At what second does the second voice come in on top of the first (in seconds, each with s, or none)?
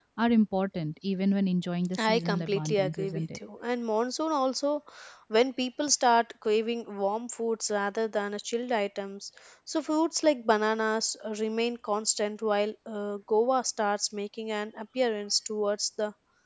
1.9 s